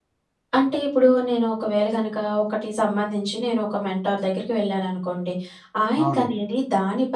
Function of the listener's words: listening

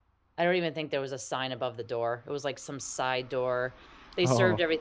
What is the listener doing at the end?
listening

